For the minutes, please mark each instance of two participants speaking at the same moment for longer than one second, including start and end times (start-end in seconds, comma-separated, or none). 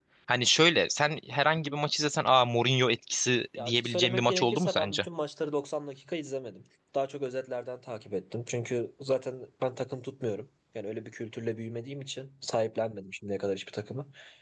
3.6-5.0